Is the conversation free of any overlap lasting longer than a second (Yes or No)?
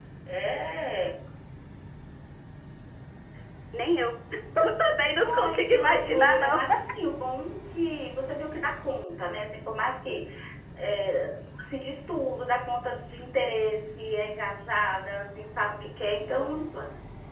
No